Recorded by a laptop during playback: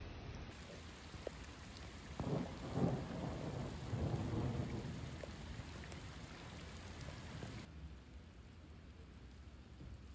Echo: none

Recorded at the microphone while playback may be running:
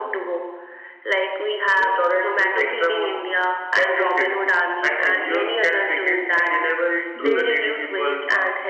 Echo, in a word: present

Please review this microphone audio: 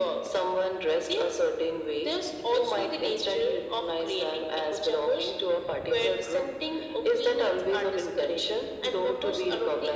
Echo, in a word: present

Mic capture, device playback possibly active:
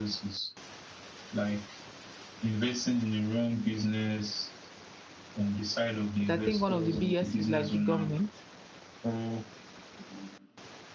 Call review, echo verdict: present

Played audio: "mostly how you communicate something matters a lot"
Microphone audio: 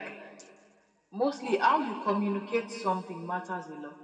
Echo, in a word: present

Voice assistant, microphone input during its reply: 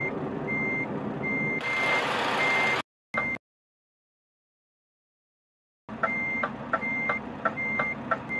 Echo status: none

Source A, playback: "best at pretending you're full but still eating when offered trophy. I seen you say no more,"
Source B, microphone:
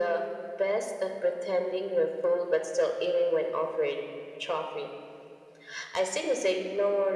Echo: present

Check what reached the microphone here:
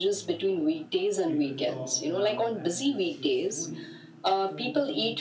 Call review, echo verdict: present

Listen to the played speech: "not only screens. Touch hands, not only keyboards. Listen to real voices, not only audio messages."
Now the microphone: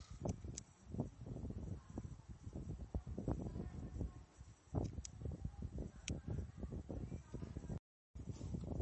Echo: none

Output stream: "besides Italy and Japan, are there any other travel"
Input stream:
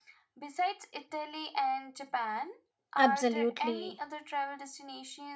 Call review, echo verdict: present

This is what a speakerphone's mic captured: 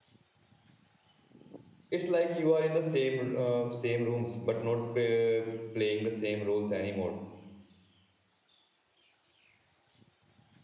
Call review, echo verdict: none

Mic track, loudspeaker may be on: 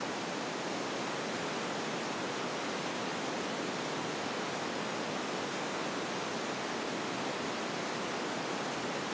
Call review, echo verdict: none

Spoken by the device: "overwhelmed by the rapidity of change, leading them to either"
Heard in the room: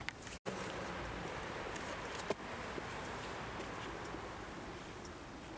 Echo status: none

